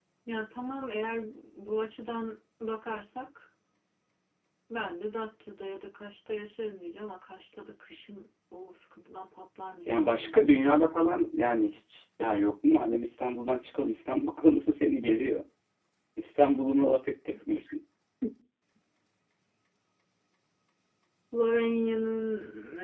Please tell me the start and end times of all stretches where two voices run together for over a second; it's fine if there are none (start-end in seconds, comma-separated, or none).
none